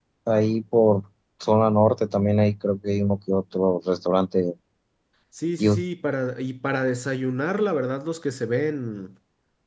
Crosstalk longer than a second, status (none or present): none